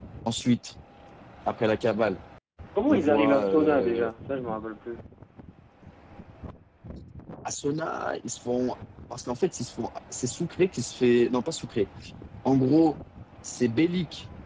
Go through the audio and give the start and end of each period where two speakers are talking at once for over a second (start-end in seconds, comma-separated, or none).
2.9-4.1